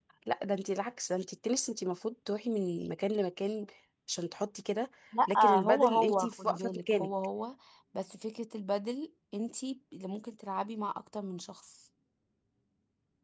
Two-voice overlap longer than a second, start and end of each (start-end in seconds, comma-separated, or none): 5.3-7.1